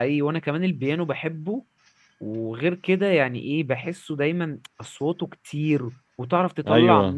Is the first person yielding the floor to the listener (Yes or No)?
No